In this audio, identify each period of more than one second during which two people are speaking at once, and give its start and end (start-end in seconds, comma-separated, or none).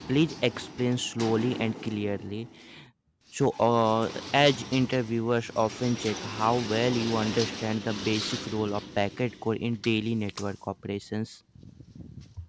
none